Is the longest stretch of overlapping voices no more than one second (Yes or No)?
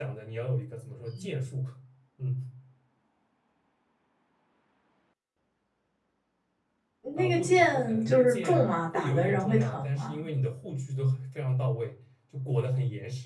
No